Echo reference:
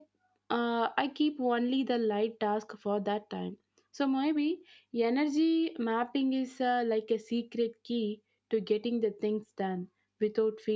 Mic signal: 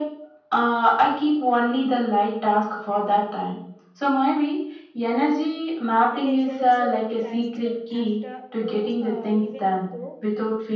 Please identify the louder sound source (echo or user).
echo